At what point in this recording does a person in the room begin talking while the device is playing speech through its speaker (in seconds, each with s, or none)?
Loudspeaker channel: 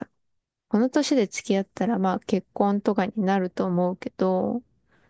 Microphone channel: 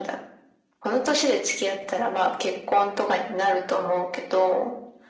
none